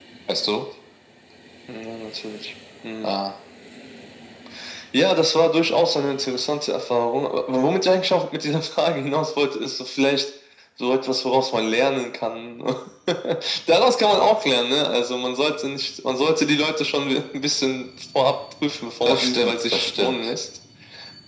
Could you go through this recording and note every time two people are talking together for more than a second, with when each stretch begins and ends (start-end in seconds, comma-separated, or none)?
19.0-20.3